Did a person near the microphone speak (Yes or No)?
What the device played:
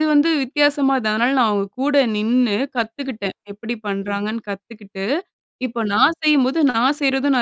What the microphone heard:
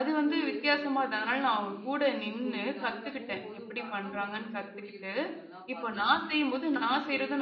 Yes